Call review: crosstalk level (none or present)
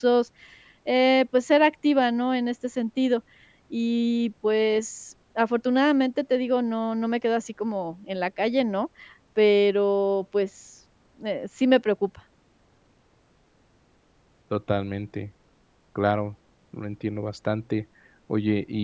none